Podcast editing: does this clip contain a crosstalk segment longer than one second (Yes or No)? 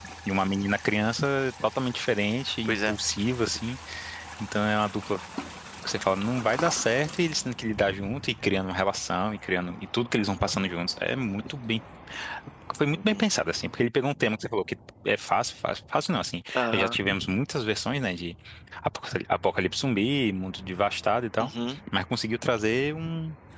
No